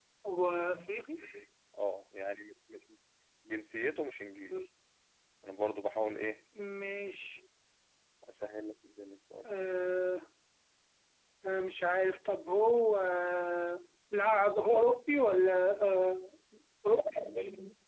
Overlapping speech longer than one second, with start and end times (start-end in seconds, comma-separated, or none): none